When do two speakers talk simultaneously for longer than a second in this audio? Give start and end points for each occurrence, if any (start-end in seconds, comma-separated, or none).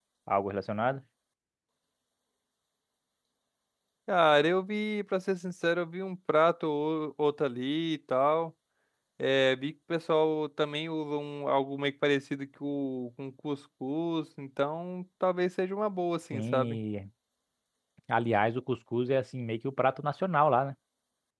none